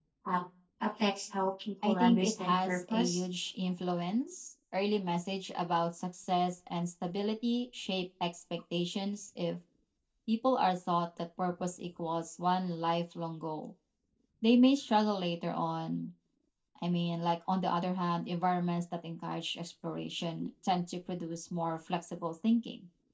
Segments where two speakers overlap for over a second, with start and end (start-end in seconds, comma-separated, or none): 1.8-3.2